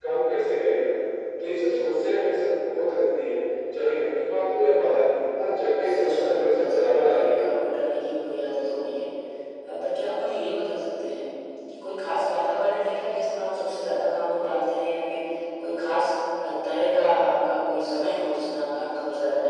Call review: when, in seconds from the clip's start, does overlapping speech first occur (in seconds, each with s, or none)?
5.9 s